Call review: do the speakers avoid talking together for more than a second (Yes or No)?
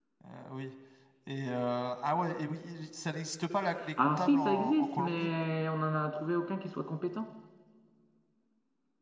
No